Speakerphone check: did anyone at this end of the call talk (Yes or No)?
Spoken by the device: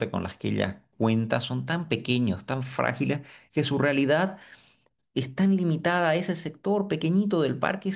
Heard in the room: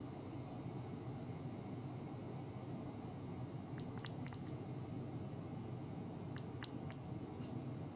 No